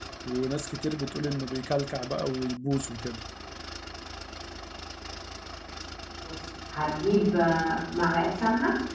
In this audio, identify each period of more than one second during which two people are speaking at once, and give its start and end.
none

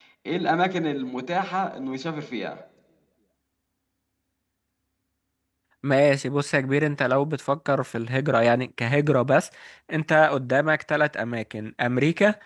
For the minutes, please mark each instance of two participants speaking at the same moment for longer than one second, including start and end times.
none

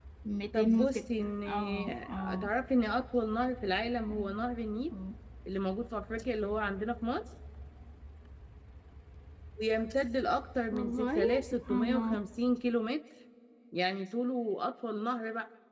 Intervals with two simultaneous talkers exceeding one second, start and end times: 0.5-2.5, 10.7-12.2

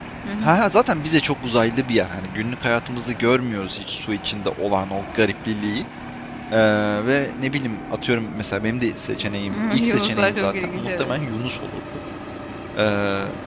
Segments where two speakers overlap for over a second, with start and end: 9.5-11.1

